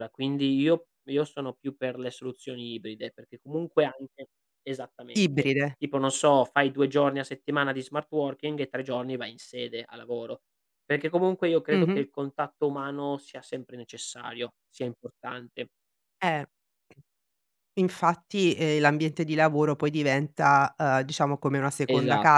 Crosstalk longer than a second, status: none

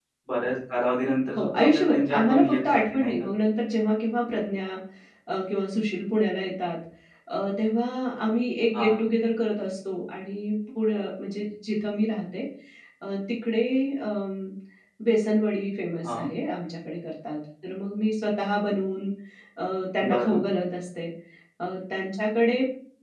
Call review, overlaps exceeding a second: present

